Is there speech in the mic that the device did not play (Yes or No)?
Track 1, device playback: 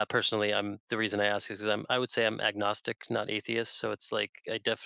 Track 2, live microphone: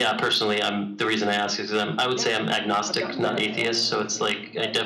Yes